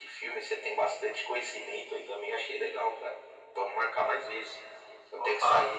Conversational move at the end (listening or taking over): listening